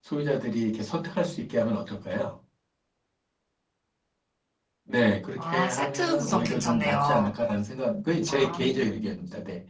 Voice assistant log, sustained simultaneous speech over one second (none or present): present